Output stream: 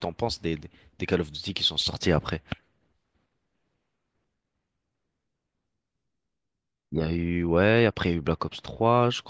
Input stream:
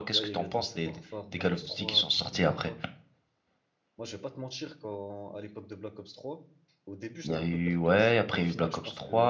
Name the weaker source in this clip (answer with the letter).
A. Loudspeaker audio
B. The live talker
B